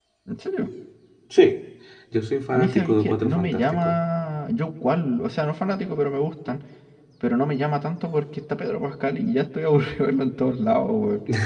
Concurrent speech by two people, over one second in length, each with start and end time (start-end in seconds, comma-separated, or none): 2.5-4.0